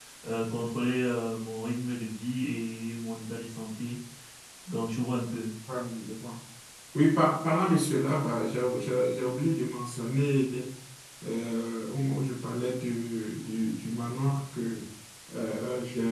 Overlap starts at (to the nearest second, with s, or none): none